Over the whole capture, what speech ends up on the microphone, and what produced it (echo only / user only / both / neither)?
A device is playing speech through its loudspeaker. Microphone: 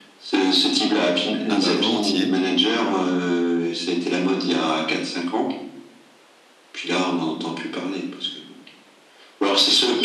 both